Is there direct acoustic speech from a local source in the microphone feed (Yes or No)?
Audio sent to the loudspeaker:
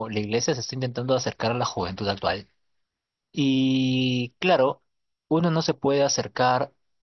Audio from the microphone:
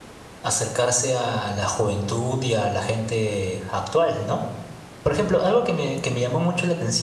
Yes